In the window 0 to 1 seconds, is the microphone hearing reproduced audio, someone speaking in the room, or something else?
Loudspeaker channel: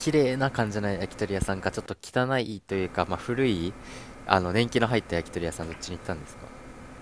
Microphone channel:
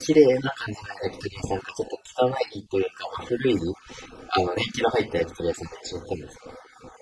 echo only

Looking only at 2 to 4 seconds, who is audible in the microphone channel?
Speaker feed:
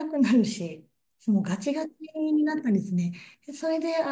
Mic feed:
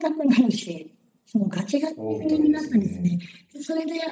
both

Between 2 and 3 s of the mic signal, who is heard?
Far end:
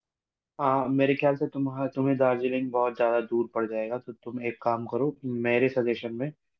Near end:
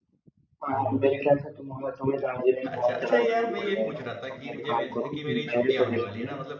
both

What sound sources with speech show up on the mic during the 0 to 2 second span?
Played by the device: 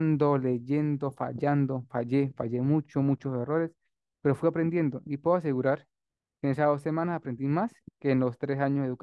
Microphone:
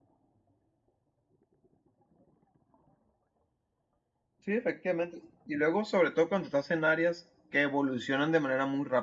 neither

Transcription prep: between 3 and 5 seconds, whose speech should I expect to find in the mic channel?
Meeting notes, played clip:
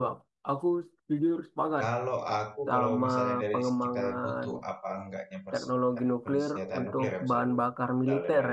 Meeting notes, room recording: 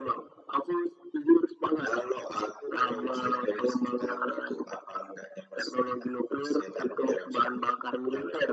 echo only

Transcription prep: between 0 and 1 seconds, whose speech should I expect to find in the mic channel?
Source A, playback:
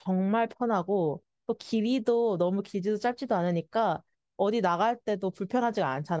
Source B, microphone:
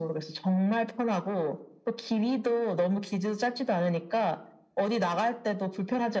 echo only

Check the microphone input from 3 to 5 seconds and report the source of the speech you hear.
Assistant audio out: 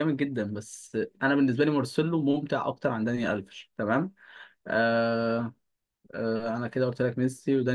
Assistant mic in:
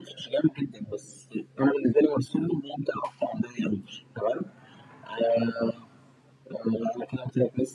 echo only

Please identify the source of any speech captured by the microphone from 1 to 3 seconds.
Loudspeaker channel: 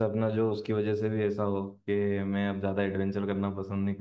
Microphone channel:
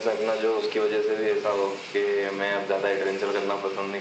echo only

